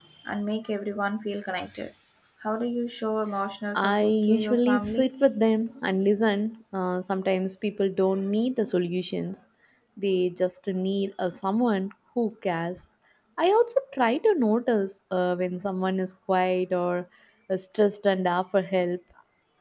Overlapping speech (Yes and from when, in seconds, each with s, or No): Yes, from 3.7 s